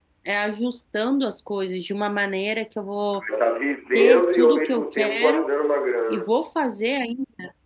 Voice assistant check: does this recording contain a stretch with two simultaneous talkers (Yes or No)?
Yes